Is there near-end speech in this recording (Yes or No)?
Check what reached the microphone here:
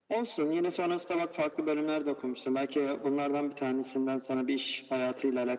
No